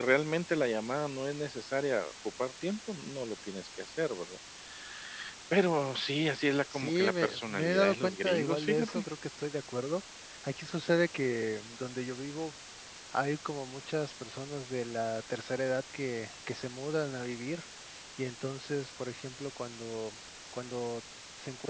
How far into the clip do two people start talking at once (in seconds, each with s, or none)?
6.7 s